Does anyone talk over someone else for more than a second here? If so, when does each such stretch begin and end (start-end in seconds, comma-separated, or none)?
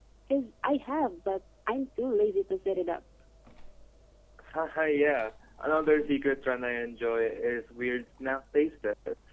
none